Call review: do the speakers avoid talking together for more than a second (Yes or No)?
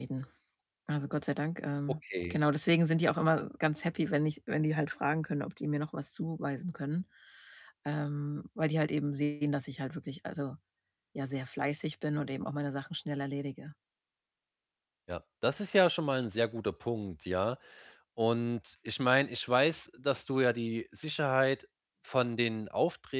Yes